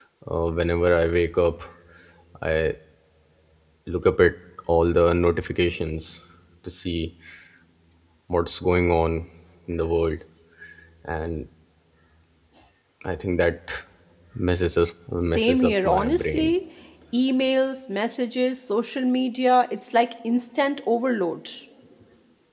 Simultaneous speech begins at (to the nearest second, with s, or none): 15 s